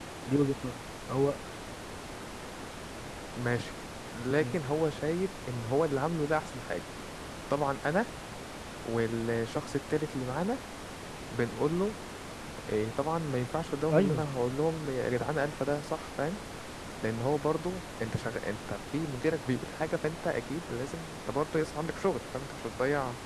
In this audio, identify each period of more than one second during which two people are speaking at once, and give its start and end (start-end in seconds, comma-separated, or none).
none